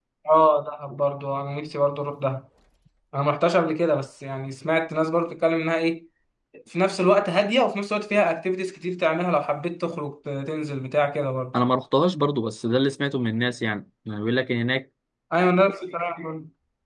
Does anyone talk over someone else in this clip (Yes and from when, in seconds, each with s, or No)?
No